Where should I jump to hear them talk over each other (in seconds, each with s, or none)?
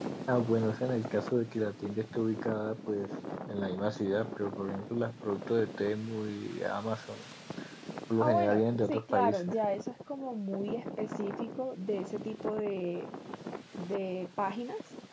8.2 s